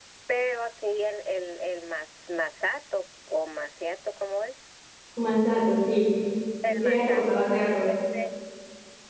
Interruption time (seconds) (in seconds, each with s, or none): 6.7 s